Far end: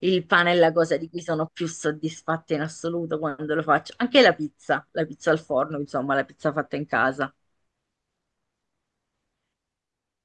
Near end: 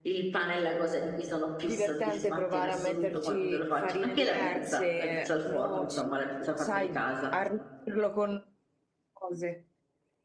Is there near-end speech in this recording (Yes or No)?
Yes